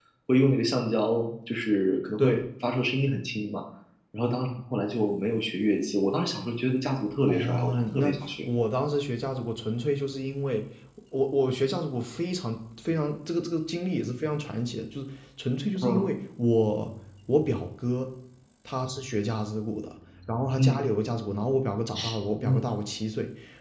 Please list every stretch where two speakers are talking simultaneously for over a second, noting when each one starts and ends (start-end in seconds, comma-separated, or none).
7.3-8.5